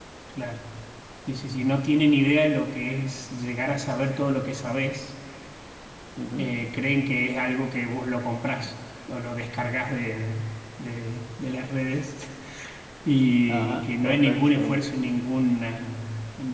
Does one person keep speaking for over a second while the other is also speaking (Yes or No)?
Yes